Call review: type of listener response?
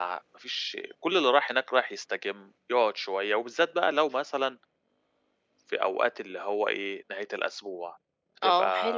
taking over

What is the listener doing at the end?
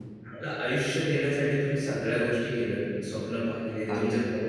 listening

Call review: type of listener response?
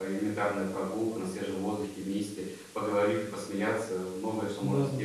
taking over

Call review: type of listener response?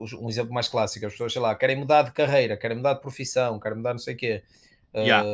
listening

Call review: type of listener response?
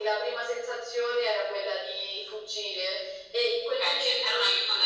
taking over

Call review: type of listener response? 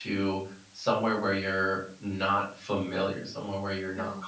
listening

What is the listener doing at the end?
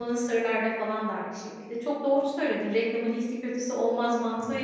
listening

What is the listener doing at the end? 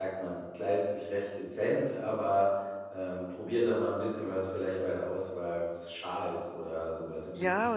taking over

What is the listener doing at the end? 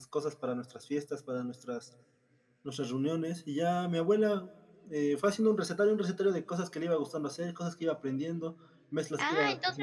taking over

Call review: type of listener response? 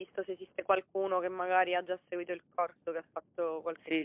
taking over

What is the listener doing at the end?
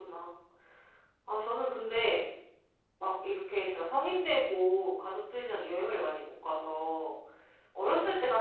listening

